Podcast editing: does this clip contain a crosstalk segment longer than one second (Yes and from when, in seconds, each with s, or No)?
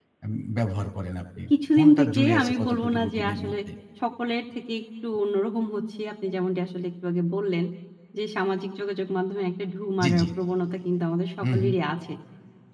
Yes, from 1.5 s